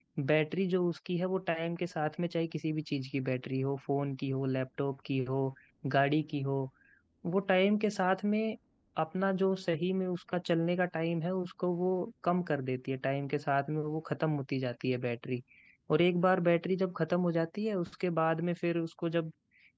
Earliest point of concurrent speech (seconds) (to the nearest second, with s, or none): none